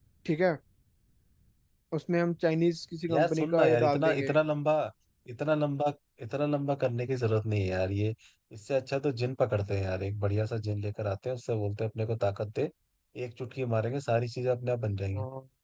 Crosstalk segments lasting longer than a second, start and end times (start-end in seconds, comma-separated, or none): 3.1-4.3